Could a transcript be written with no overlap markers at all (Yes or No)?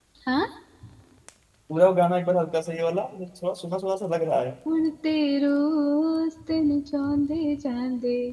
Yes